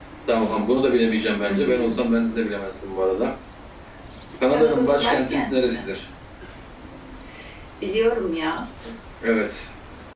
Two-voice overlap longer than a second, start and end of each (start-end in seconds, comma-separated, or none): 4.5-5.9